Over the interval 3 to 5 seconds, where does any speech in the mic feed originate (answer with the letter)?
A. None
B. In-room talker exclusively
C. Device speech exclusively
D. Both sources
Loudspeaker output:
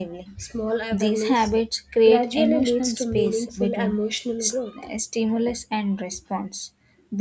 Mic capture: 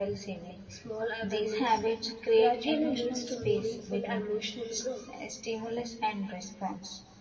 C